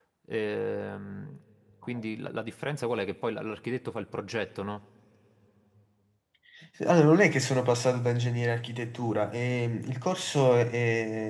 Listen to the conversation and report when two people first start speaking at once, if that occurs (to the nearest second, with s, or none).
none